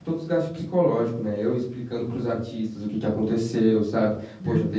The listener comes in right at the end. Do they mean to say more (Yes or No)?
No